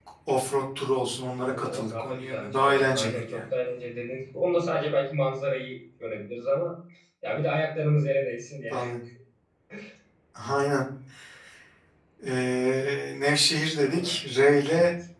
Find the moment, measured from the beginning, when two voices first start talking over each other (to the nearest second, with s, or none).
1 s